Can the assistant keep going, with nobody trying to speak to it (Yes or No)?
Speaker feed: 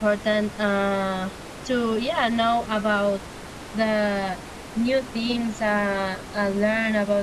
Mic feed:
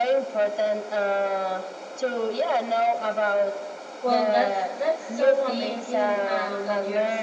No